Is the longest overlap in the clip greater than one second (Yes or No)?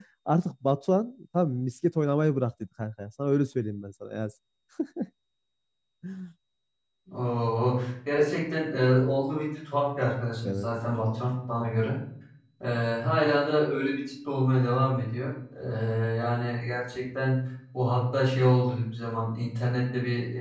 No